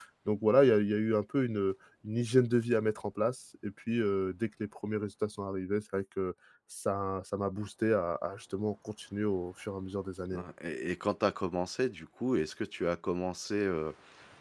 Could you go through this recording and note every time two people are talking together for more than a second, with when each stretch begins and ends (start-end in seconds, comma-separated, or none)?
none